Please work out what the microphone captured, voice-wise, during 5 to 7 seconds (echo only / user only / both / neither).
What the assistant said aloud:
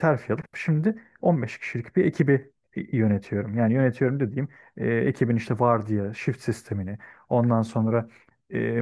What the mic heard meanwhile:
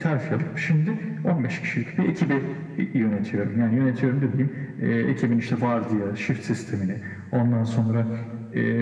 echo only